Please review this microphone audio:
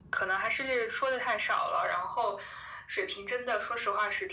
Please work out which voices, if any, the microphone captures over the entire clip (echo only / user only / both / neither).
echo only